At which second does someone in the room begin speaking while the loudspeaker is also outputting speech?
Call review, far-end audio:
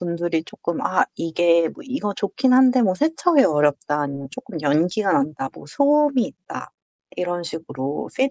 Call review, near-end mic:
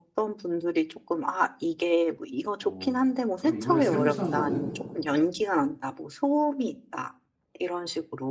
2.6 s

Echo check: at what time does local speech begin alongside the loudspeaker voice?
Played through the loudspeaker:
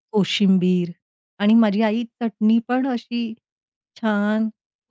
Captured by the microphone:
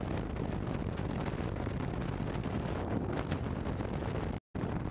none

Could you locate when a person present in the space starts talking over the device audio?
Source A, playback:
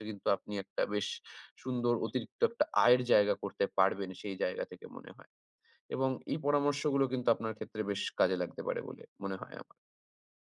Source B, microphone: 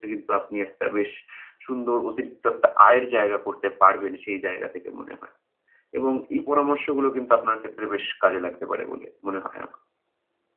none

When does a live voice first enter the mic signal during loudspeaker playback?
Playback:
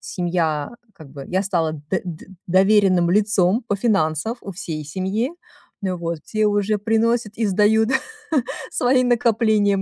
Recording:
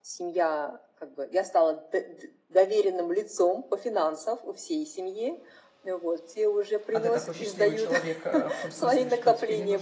6.9 s

